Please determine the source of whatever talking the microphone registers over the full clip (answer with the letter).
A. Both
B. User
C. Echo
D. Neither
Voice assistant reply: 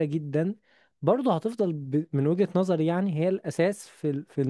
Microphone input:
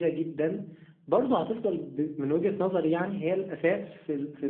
C